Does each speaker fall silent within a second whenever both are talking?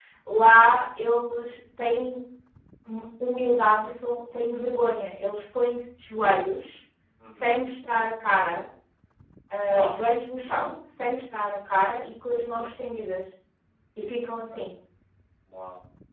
Yes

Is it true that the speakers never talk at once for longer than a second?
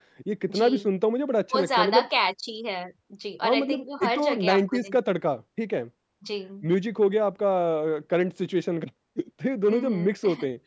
No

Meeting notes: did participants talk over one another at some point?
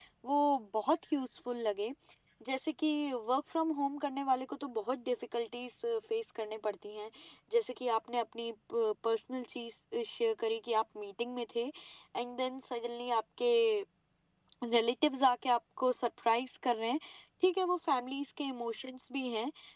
No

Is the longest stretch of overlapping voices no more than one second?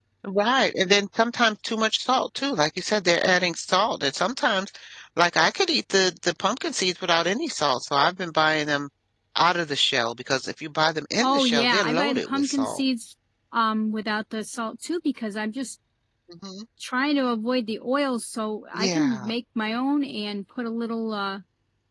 No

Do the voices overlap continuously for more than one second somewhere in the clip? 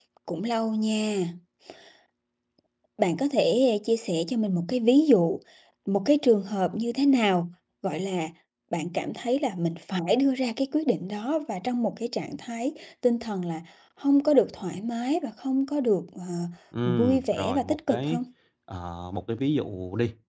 Yes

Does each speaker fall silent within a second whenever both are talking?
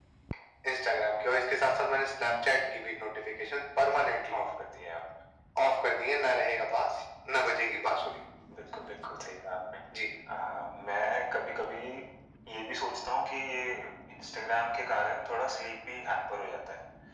Yes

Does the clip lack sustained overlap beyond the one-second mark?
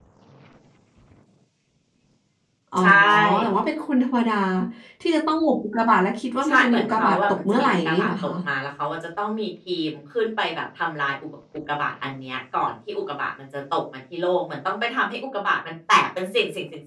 No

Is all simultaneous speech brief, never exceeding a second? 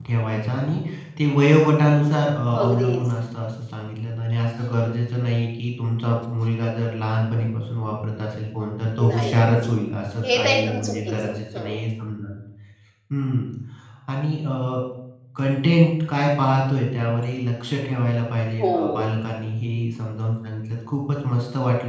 No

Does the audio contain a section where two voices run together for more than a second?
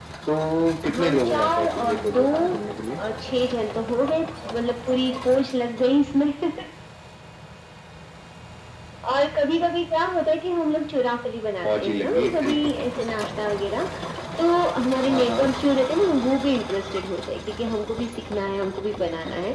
Yes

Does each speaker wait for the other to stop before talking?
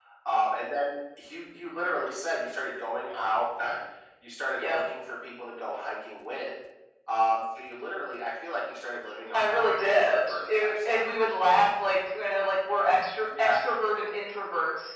No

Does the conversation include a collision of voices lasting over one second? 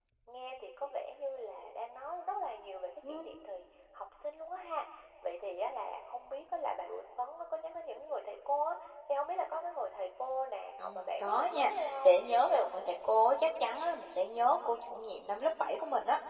Yes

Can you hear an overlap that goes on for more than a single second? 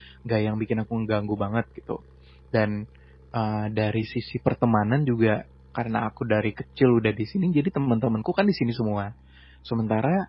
No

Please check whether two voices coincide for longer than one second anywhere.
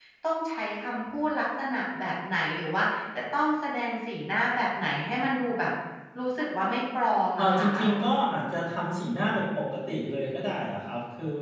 No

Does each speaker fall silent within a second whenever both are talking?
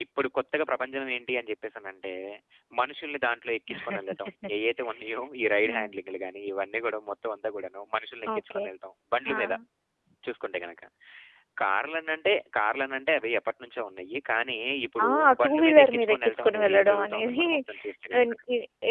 No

